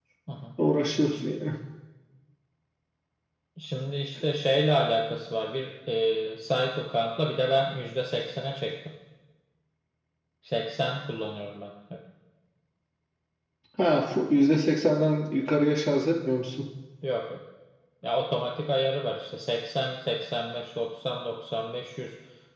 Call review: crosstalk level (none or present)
none